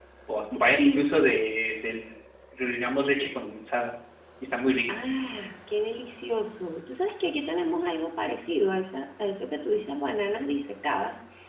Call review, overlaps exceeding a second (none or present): none